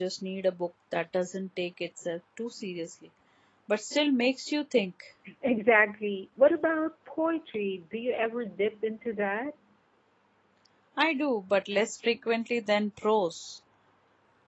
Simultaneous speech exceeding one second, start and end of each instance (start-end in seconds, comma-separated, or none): none